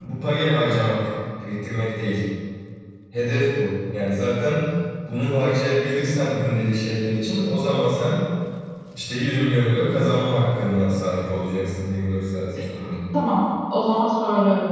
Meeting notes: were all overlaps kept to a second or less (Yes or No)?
Yes